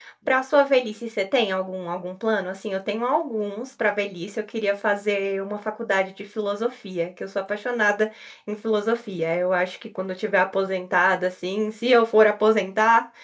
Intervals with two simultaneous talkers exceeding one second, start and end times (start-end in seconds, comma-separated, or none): none